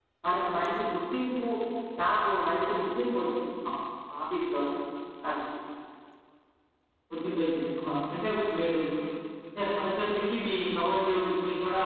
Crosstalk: none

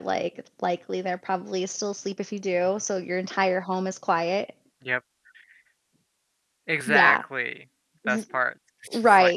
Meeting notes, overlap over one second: none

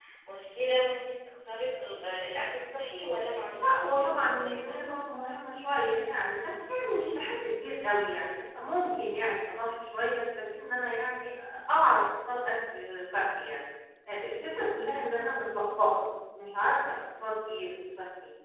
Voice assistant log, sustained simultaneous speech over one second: present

